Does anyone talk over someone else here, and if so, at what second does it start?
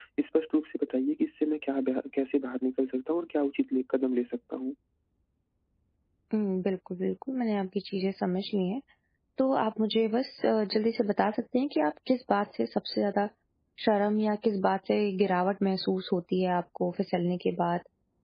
none

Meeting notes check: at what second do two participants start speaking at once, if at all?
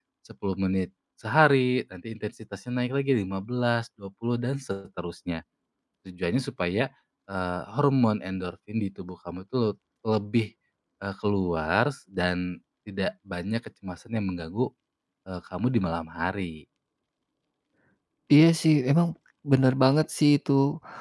none

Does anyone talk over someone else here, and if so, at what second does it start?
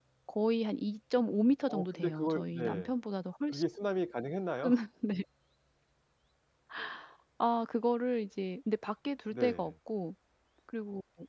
1.7 s

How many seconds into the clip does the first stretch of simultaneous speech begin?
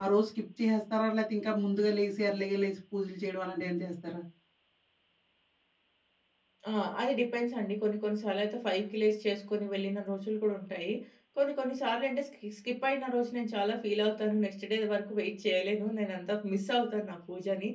none

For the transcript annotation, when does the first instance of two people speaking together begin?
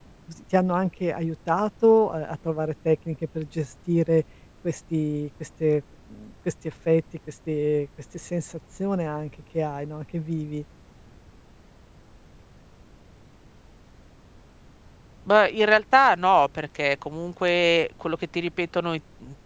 none

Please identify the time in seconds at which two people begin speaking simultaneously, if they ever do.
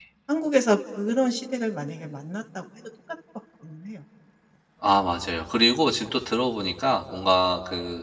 none

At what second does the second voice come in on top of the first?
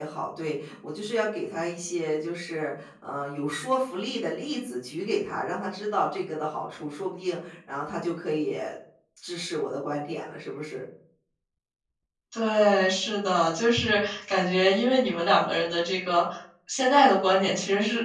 none

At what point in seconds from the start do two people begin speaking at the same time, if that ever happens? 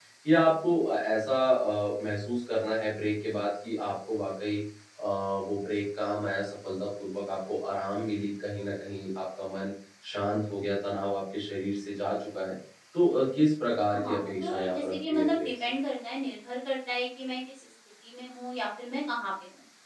13.9 s

